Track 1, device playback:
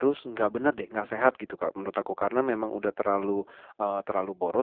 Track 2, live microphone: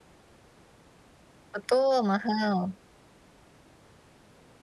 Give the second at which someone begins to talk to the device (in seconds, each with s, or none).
1.5 s